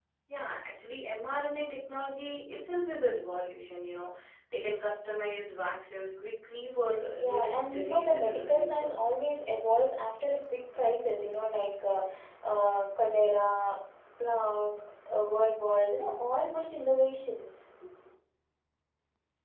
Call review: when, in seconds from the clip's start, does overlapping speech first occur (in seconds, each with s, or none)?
7.2 s